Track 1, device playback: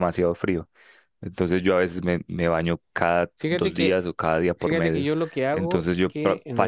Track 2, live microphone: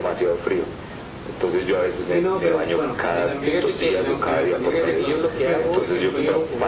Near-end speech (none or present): present